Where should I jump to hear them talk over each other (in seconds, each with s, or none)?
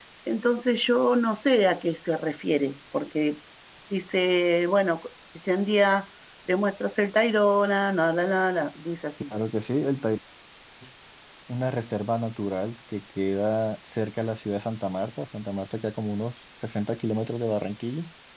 none